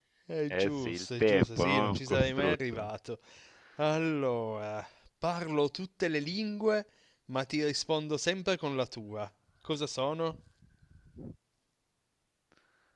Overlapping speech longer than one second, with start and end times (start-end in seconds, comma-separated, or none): 0.5-2.9